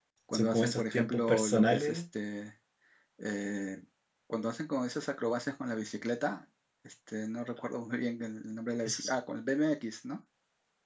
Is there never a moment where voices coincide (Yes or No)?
No